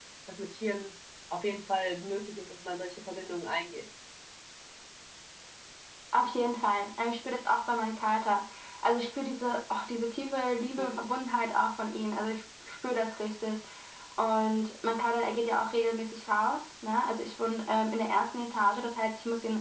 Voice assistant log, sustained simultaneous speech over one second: none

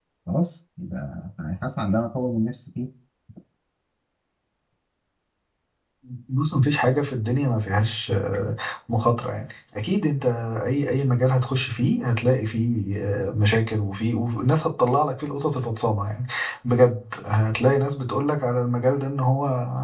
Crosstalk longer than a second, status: none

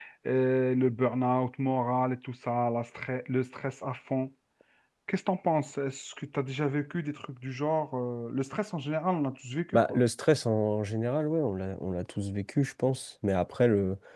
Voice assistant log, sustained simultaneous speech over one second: none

